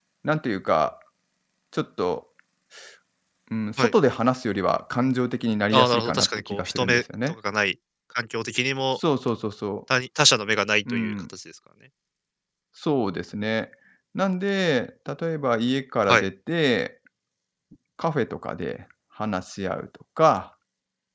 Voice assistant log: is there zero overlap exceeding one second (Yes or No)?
No